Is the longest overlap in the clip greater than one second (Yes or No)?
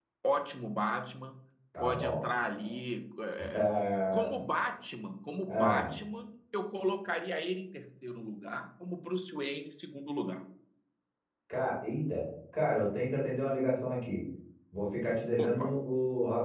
No